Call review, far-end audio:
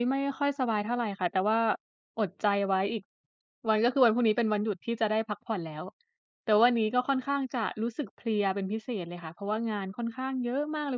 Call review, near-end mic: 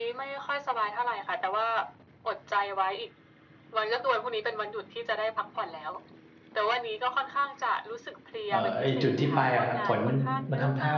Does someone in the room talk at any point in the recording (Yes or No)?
Yes